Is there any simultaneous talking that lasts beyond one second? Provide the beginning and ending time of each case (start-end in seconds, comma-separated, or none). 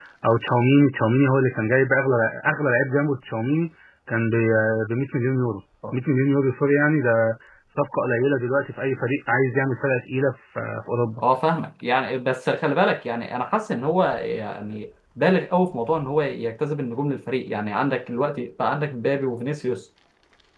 none